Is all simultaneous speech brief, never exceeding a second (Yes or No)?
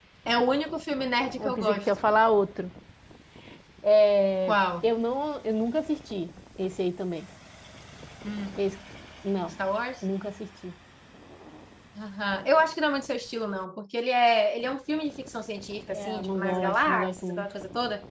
No